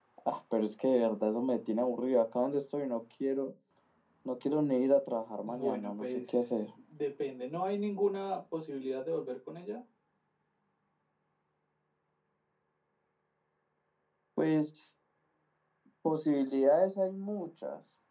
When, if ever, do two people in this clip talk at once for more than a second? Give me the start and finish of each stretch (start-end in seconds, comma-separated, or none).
5.4-6.7